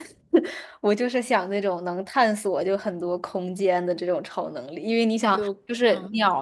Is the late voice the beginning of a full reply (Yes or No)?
No